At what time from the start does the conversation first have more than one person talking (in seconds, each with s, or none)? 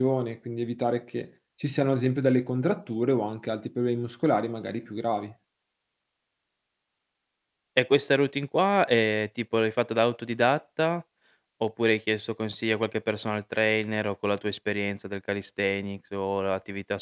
none